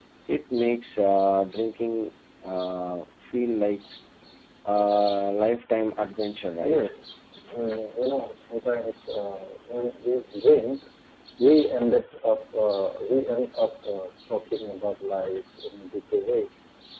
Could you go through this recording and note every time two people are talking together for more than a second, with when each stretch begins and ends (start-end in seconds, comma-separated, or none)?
none